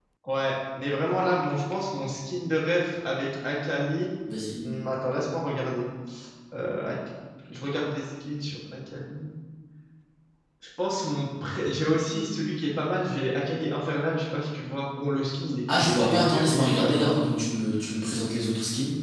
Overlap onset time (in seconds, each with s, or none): 15.7 s